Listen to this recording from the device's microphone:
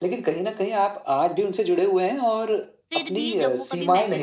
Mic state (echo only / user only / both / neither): both